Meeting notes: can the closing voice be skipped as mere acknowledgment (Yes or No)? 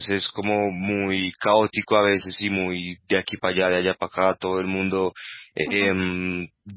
Yes